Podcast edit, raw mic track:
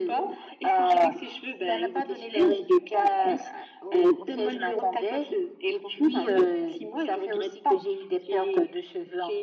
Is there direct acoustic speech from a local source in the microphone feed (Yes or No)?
No